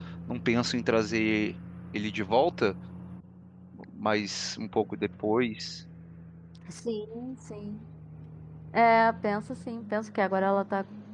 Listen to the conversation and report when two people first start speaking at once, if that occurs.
none

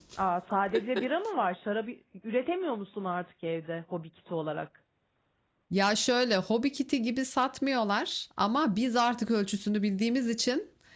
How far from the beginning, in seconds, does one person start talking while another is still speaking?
none

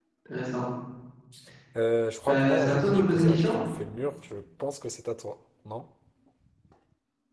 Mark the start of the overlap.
2.3 s

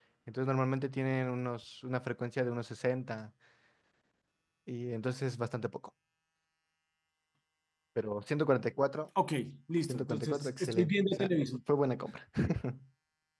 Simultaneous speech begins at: 9.9 s

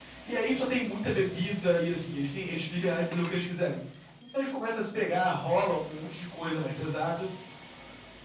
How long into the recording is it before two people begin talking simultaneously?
none

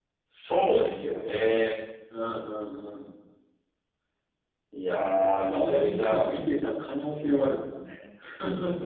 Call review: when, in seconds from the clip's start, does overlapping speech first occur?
5.0 s

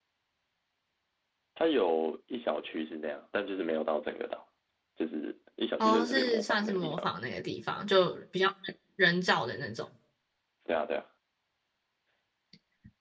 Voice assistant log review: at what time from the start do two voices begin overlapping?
5.8 s

